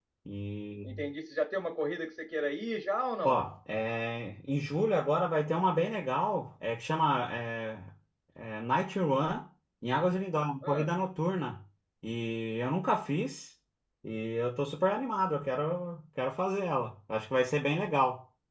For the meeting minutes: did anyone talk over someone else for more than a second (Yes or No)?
No